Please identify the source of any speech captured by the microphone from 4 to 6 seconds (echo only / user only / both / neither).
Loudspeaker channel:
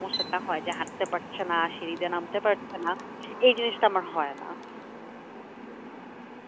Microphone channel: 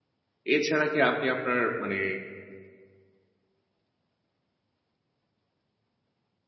neither